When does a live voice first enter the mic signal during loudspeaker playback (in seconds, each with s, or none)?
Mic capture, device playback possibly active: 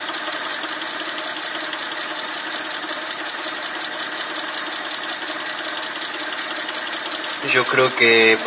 7.4 s